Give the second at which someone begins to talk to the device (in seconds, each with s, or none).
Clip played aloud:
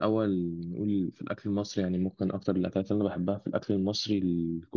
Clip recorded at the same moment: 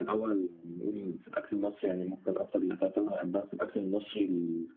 none